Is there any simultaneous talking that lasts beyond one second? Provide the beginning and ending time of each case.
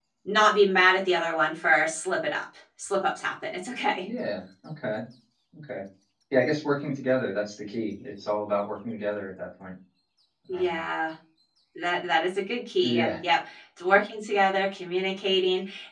none

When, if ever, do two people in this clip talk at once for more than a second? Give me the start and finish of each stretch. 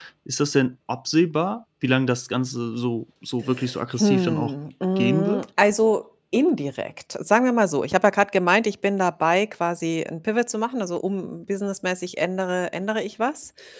none

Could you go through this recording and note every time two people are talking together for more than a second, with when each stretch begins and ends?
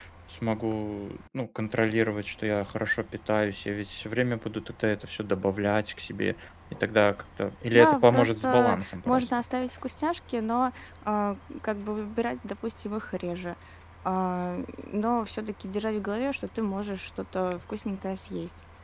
7.7-9.3

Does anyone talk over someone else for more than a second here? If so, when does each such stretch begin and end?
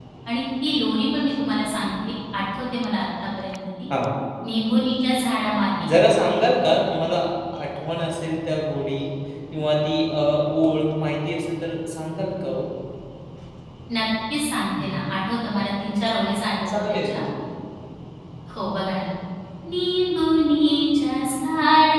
none

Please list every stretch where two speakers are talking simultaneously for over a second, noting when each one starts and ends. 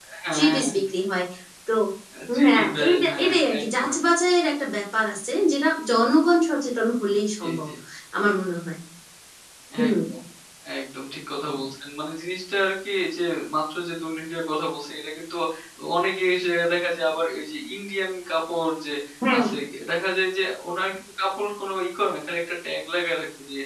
2.4-4.0

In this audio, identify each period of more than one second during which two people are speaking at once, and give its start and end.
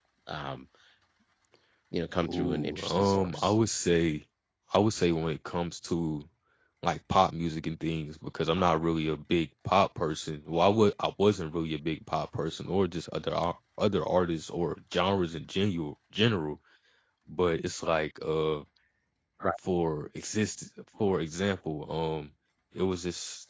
2.3-3.5

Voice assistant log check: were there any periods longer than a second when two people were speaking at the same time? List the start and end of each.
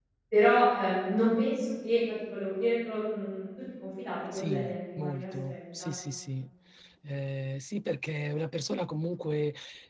4.3-5.9

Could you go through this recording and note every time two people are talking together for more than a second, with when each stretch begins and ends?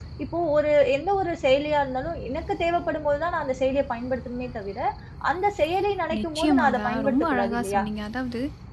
6.2-7.8

